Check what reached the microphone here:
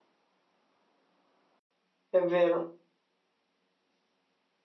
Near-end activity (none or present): present